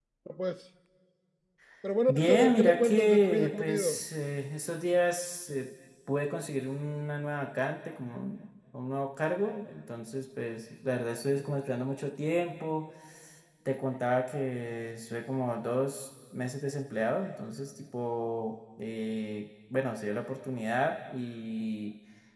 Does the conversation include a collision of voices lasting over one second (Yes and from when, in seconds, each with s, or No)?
Yes, from 2.1 s